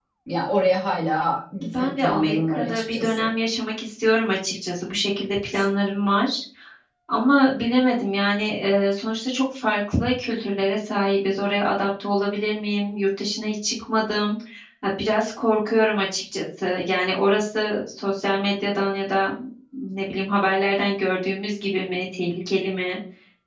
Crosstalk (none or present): present